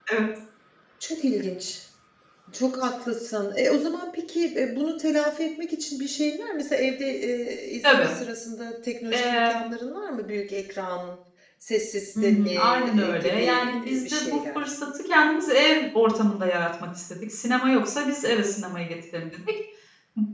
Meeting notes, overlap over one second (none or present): present